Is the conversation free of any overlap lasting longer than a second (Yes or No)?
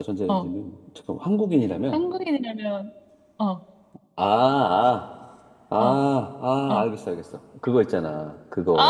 Yes